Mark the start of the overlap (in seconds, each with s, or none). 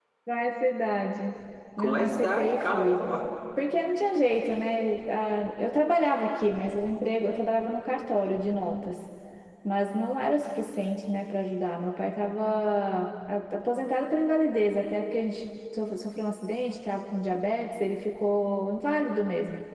1.8 s